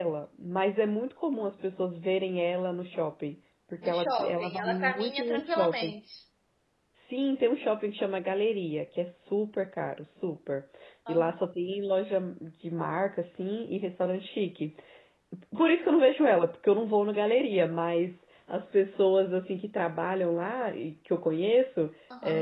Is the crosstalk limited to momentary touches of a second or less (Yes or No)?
No